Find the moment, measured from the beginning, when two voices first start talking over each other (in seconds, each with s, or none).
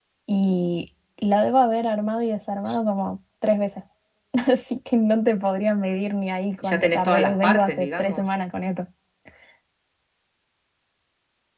6.6 s